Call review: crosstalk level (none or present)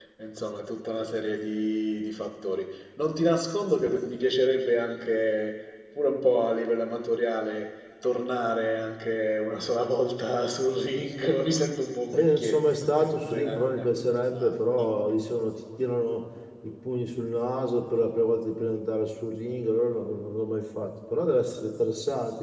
present